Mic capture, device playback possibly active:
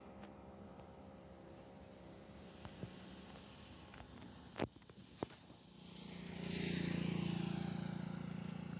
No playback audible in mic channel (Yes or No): Yes